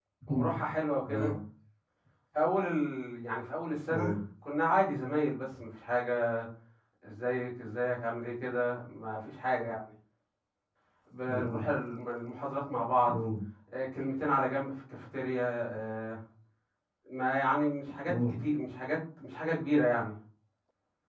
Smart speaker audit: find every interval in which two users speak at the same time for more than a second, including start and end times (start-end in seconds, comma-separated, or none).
none